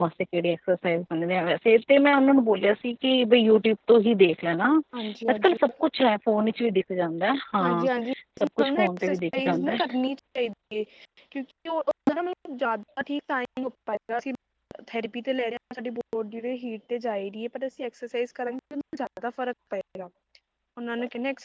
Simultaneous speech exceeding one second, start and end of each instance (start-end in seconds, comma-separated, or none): 8.4-9.8